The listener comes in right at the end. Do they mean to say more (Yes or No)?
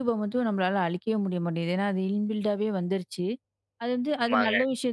No